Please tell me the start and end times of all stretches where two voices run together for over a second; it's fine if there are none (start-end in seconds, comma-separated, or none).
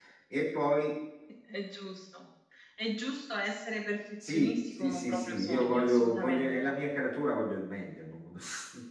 4.2-6.7